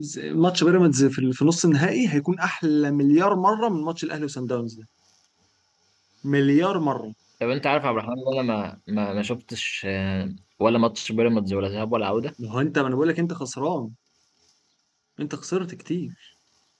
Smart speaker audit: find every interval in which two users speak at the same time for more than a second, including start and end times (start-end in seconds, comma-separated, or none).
none